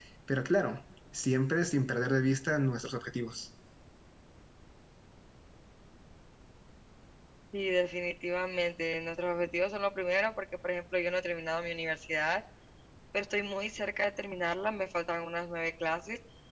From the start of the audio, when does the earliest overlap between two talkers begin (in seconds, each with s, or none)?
none